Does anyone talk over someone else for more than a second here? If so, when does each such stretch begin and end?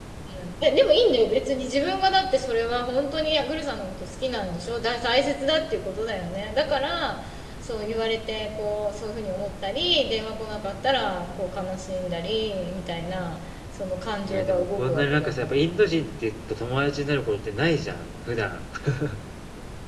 14.3-15.6

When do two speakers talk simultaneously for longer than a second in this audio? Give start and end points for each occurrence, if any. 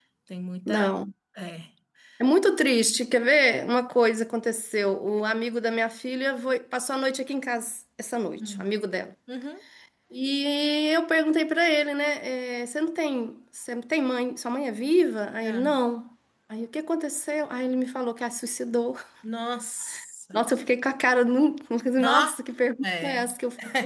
none

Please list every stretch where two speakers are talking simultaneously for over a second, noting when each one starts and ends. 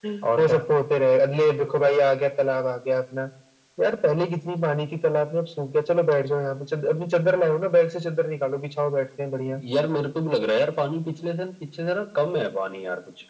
none

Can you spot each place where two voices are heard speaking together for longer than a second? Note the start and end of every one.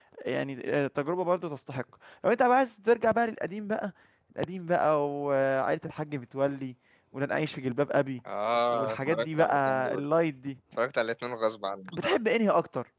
8.7-10.0

